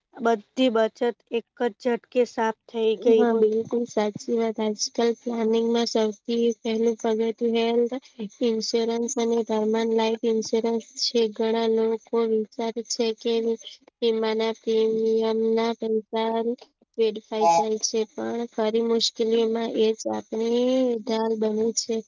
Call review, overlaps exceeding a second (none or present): none